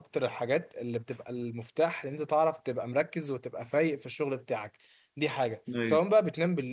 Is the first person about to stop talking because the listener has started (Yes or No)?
No